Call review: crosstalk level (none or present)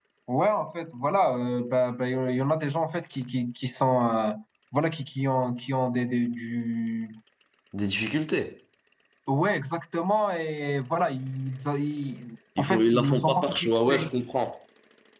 present